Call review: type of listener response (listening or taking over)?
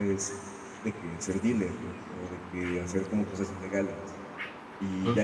listening